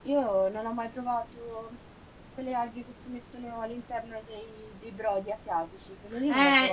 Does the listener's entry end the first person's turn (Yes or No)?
Yes